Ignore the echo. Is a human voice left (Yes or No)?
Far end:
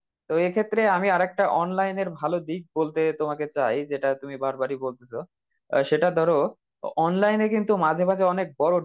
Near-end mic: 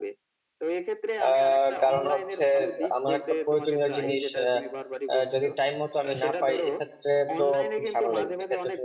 Yes